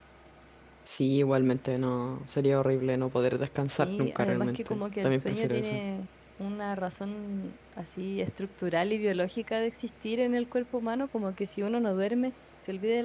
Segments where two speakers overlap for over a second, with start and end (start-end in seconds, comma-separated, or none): 3.8-5.8